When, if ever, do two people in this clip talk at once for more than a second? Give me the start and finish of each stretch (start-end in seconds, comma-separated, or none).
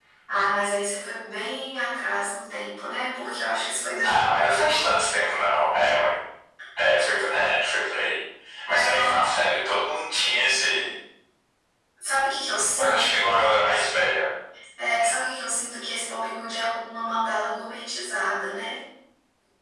4.0-5.2